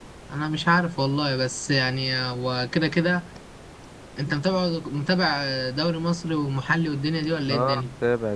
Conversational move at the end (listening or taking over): taking over